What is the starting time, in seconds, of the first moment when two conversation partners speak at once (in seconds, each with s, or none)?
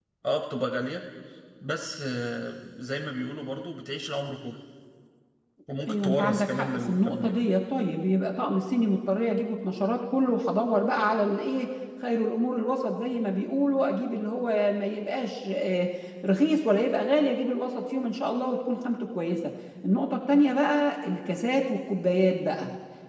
5.9 s